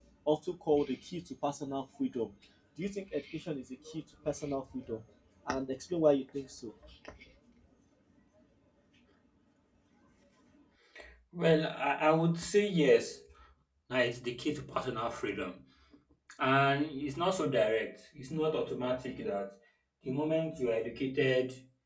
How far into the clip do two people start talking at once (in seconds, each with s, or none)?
none